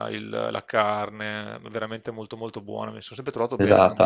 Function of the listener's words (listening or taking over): taking over